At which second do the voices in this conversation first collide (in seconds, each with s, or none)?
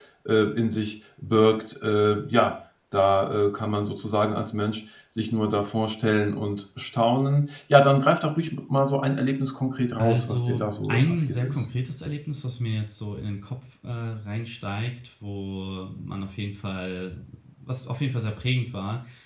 10.0 s